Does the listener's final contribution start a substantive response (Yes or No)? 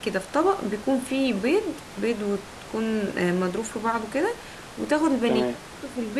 No